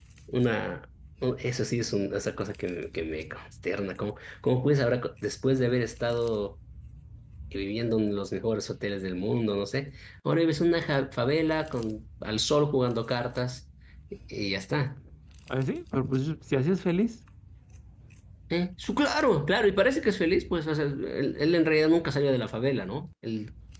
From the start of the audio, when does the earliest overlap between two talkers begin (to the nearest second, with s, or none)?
none